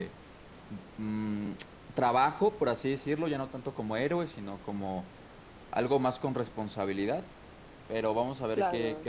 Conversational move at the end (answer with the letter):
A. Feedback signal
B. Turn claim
A